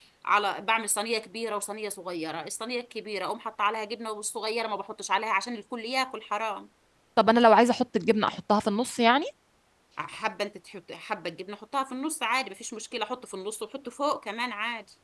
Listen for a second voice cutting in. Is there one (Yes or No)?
No